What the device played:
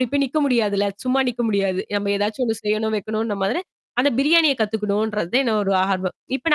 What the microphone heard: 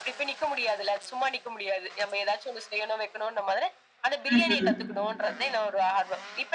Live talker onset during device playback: 4 s

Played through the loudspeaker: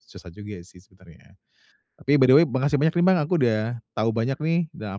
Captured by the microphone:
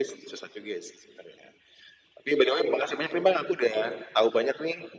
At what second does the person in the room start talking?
none

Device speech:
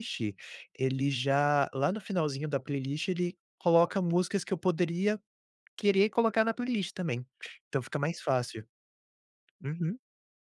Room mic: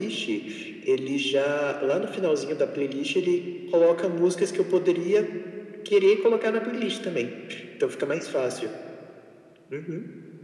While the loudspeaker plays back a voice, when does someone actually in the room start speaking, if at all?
none

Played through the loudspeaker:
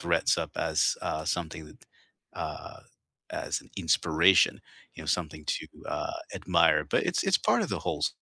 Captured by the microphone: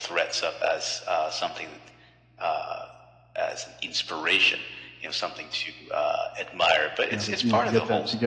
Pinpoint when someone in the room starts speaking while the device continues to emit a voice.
7 s

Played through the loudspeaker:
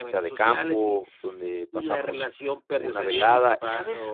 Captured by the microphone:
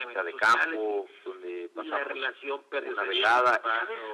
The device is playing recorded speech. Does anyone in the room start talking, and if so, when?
none

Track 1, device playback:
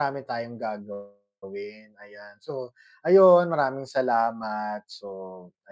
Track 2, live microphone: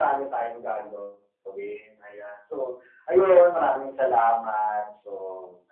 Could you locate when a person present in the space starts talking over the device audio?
none

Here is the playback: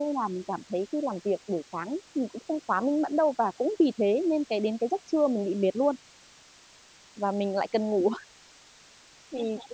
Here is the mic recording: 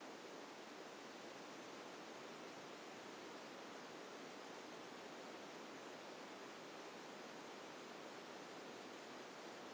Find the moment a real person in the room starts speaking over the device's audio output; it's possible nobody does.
none

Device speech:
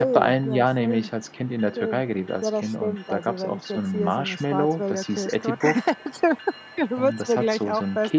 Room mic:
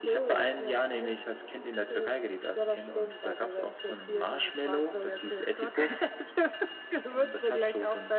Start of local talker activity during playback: none

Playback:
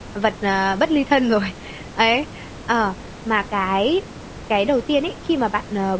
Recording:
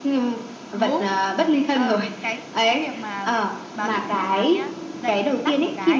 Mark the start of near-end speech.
1 s

